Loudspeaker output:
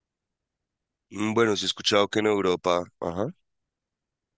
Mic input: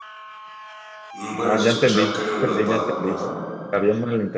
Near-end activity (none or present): present